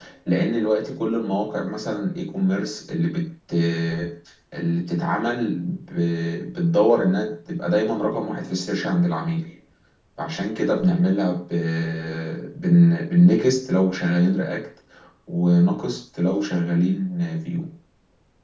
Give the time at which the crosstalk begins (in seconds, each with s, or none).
none